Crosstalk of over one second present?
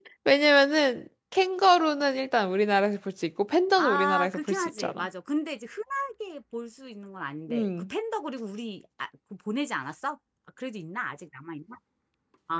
Yes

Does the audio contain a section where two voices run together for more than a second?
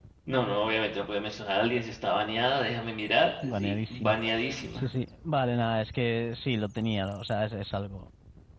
Yes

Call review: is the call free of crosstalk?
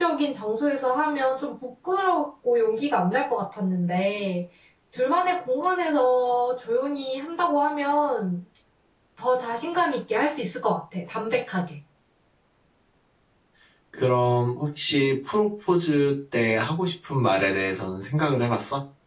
Yes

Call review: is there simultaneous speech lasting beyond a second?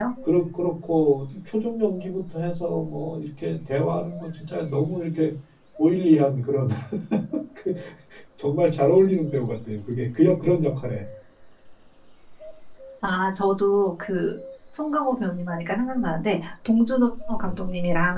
No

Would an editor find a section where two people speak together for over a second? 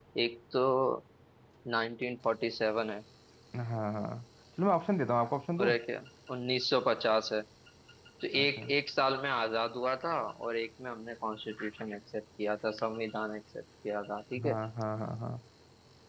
No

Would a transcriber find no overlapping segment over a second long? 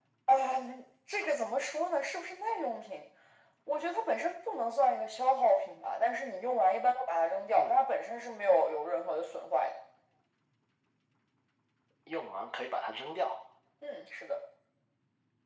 Yes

